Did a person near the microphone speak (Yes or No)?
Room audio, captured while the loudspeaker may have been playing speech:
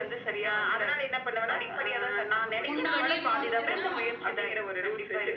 Yes